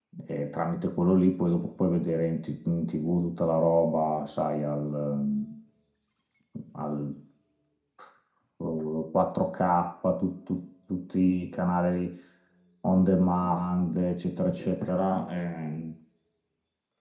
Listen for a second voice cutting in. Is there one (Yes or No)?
No